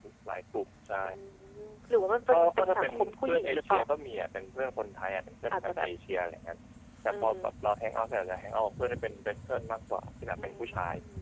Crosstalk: present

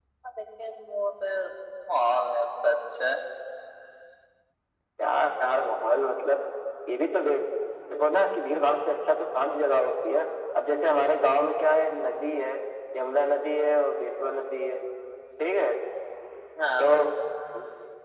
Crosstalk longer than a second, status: none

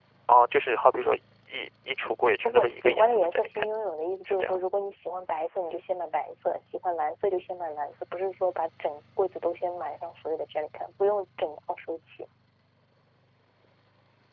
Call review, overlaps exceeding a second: present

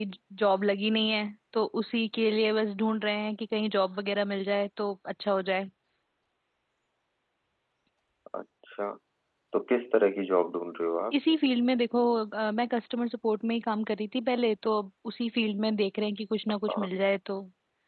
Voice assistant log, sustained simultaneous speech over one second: none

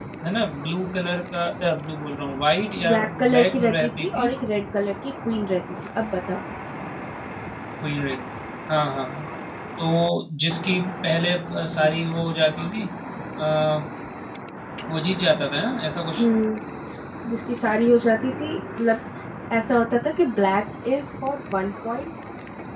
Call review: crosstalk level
present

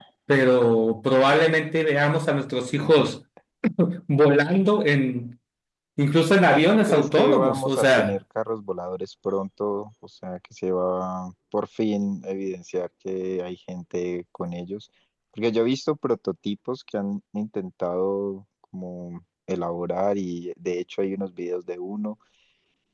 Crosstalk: present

